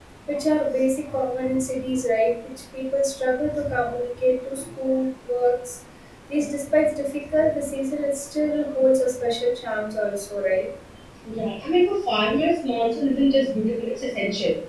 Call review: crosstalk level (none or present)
none